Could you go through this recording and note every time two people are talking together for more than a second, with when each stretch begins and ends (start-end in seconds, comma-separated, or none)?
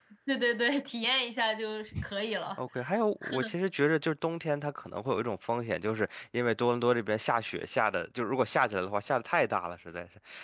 none